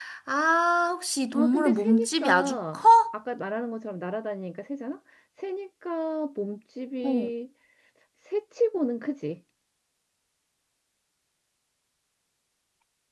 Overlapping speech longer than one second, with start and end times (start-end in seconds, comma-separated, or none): 1.3-2.8